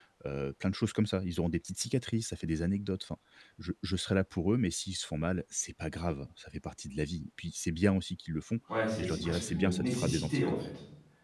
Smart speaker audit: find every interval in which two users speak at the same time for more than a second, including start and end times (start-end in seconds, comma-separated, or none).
9.0-10.7